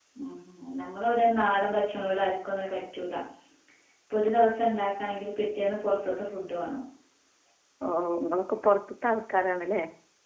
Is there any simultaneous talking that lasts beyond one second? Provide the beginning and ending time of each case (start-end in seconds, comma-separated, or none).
none